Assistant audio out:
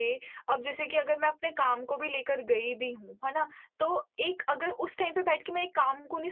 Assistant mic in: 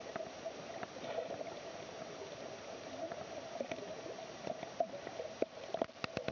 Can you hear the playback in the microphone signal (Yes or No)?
No